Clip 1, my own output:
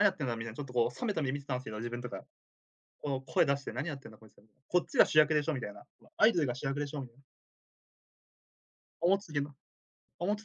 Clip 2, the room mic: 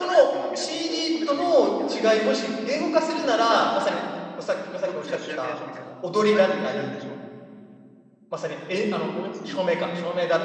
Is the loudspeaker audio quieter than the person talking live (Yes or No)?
Yes